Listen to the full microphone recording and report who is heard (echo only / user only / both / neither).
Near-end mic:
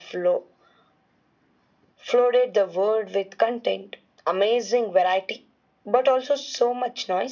echo only